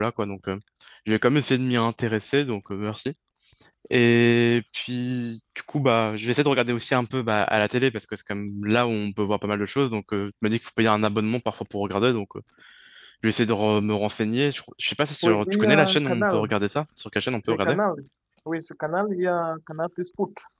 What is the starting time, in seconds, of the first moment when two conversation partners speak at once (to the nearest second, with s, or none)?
15 s